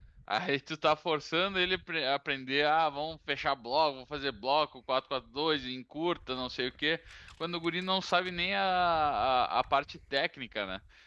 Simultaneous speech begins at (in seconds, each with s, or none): none